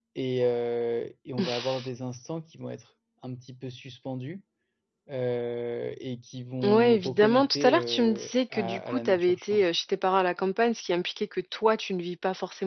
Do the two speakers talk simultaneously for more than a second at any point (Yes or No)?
Yes